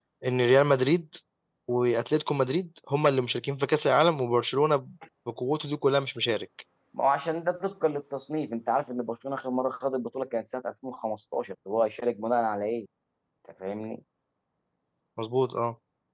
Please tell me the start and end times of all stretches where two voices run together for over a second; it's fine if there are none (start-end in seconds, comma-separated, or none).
none